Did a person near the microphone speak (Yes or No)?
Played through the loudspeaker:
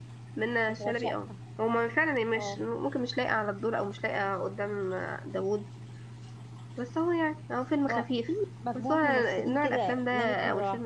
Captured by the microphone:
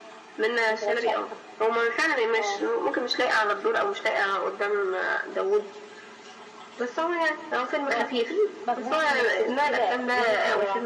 No